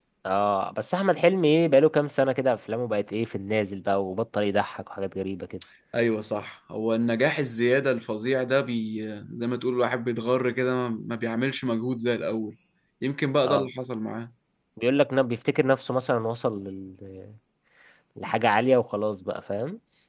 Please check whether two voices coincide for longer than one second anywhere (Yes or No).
No